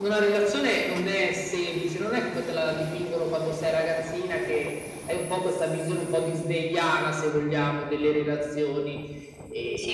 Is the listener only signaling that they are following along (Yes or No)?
Yes